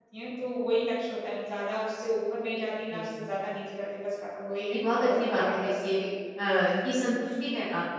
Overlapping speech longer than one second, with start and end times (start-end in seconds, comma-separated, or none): 4.7-6.0